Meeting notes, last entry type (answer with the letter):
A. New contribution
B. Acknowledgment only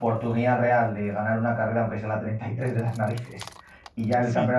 B